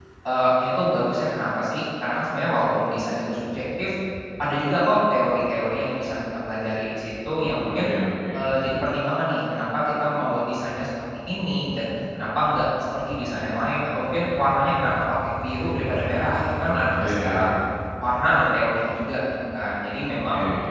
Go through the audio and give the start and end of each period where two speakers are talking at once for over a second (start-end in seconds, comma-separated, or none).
none